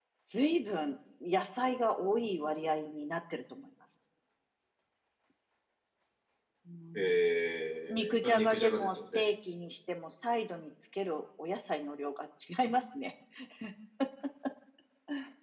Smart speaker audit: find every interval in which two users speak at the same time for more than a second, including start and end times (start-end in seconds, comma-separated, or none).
7.9-9.2